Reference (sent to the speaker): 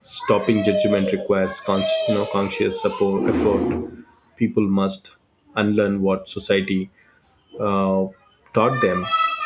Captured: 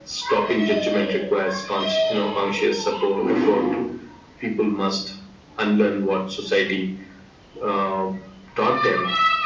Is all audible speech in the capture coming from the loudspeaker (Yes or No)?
Yes